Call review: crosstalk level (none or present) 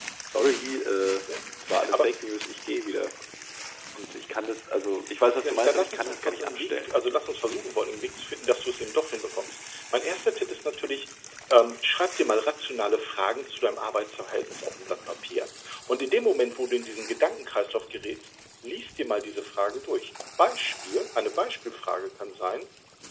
present